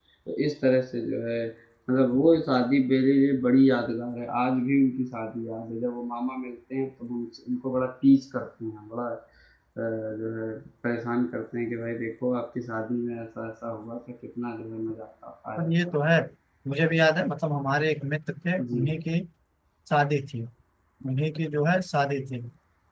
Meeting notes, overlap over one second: none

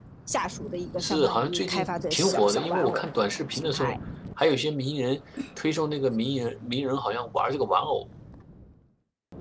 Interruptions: present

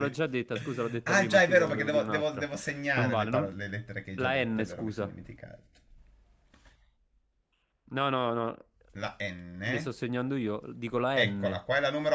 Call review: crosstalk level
present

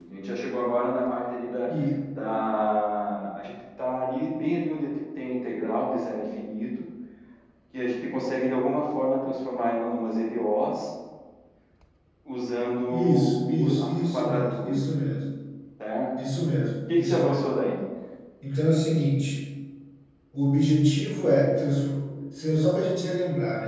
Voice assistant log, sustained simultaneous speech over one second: present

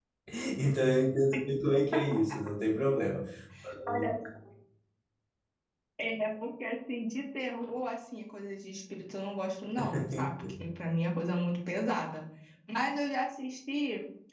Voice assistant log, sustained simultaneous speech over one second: none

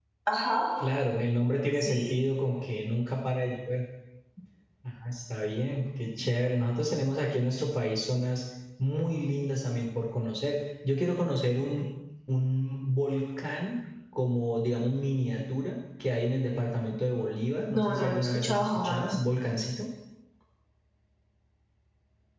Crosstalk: present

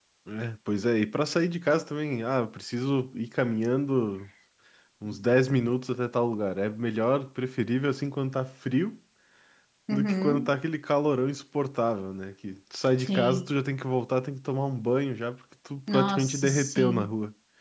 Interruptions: present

